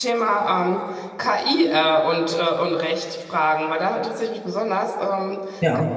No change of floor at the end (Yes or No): Yes